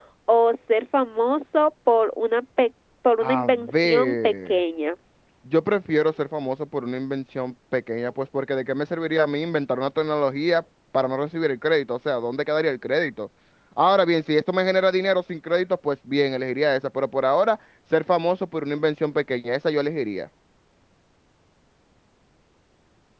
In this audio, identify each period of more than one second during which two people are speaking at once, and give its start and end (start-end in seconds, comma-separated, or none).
3.2-4.6